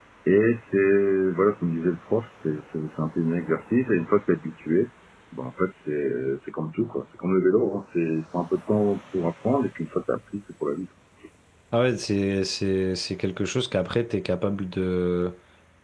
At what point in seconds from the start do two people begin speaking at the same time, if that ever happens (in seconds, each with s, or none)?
none